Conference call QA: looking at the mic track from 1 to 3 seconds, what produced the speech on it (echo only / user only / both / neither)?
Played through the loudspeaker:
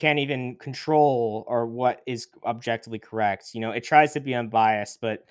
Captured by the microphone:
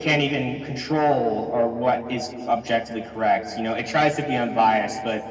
echo only